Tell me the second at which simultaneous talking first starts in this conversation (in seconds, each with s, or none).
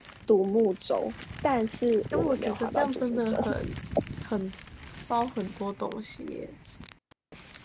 2.1 s